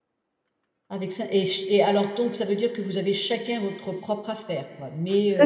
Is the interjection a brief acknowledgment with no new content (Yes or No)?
No